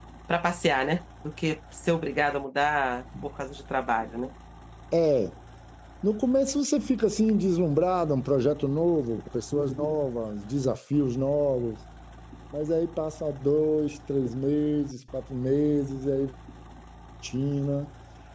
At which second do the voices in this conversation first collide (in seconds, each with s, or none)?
none